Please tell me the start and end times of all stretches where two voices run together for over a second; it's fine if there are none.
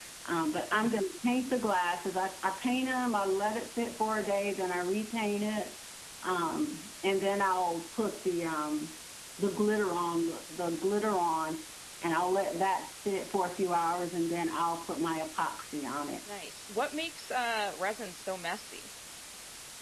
none

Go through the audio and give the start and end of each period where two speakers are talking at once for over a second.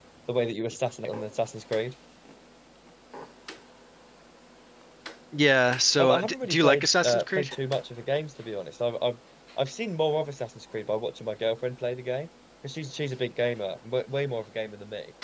6.0-7.5

